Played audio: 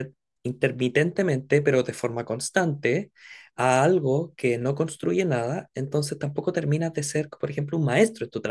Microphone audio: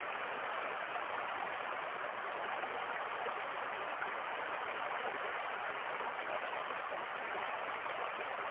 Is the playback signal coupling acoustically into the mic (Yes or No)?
No